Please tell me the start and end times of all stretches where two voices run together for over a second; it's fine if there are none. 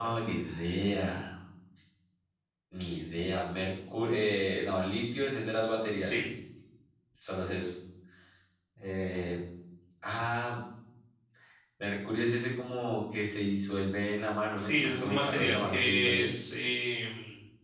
14.6-16.3

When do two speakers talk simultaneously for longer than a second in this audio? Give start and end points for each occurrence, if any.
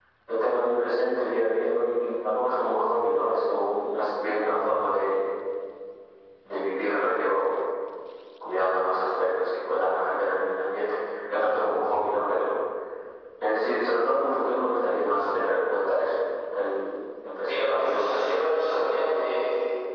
17.5-19.0

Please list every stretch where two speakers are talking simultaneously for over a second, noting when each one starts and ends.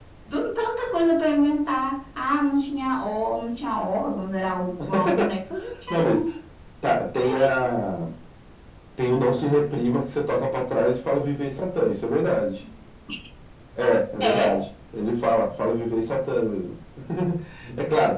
none

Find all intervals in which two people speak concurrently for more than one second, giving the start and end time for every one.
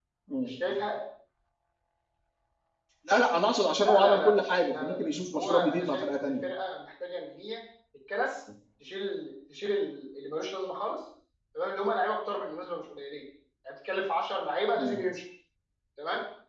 3.8-6.3

